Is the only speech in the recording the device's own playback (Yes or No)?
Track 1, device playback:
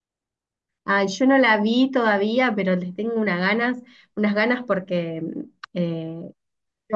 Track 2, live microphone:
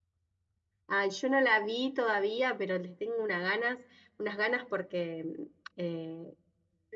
Yes